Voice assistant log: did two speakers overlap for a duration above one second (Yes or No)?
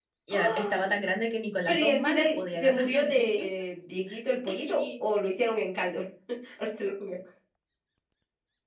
Yes